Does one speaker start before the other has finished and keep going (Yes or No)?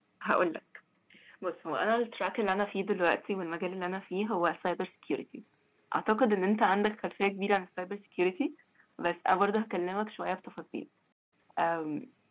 No